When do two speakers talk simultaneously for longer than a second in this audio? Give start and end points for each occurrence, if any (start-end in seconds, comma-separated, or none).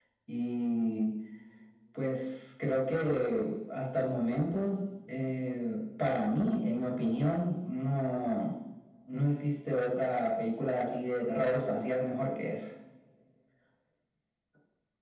none